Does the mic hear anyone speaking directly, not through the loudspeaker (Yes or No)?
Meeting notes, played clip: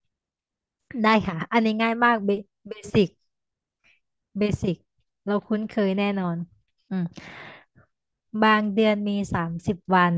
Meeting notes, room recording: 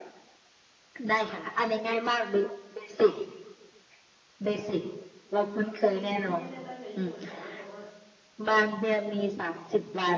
Yes